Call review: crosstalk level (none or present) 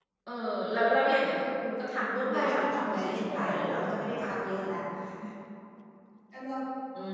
present